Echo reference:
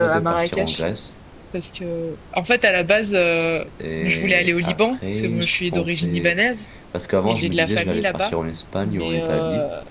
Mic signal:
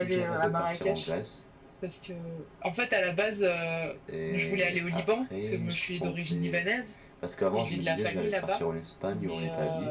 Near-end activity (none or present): none